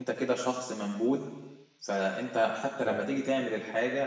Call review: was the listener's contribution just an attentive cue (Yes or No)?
Yes